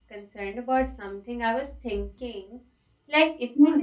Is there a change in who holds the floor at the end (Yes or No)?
No